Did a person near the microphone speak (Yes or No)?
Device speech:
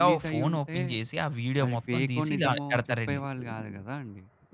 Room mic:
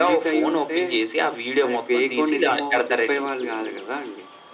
No